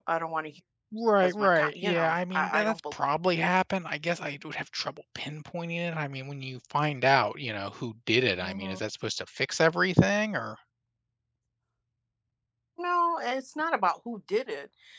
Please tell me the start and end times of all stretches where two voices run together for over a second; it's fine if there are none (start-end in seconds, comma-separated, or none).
1.2-2.8